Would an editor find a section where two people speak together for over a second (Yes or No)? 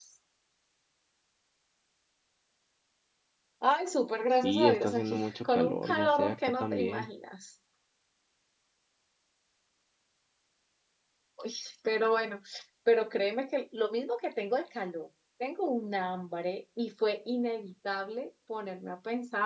Yes